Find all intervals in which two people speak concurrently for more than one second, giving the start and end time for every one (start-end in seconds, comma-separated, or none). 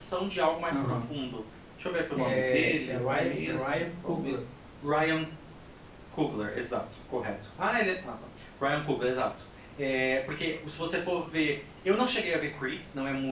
2.2-4.4